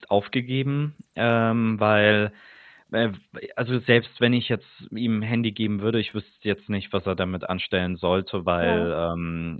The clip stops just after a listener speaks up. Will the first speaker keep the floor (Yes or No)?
Yes